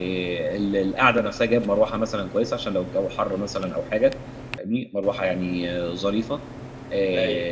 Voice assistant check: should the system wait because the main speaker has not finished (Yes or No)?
Yes